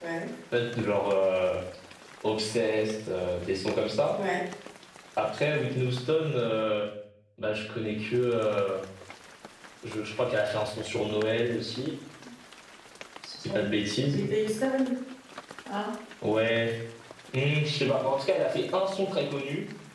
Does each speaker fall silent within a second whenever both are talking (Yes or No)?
Yes